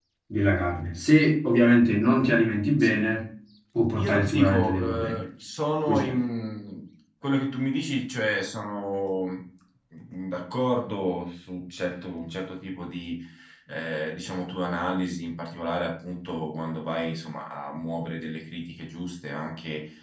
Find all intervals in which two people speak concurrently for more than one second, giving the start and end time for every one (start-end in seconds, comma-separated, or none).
4.0-5.2